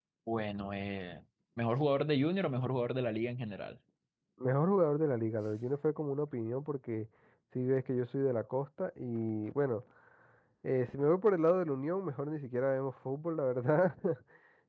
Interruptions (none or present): none